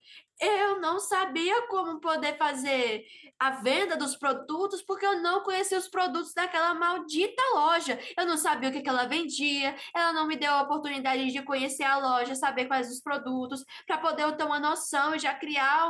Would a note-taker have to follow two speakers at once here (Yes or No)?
No